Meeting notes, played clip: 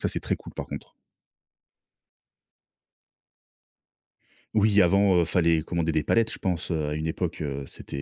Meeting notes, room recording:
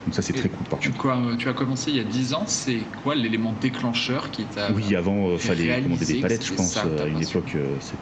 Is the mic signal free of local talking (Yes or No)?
No